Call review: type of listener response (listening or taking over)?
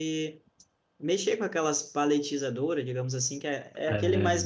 listening